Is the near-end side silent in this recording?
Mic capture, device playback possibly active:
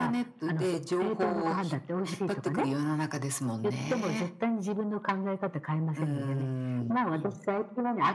Yes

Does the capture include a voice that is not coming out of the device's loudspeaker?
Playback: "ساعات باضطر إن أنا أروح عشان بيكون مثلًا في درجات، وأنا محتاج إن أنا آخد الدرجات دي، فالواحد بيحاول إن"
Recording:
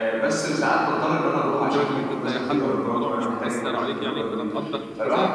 Yes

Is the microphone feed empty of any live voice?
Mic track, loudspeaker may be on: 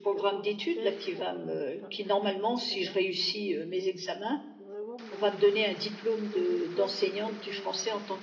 No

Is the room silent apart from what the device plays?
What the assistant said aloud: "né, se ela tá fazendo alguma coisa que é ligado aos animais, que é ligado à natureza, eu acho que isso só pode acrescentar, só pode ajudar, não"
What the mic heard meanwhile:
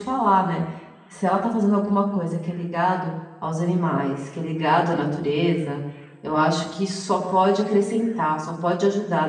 Yes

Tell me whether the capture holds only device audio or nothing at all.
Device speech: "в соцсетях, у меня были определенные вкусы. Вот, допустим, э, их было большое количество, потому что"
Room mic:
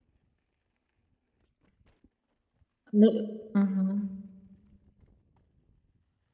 No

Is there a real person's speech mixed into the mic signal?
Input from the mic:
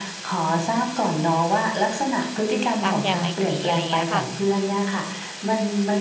Yes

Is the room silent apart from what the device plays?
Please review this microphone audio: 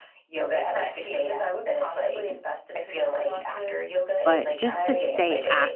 No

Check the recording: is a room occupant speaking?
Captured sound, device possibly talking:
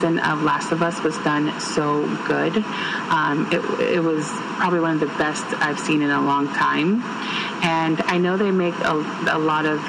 No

